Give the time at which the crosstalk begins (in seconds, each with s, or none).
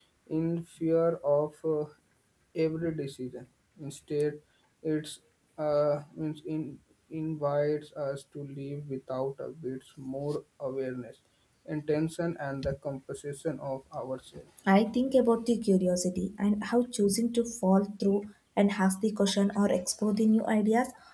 none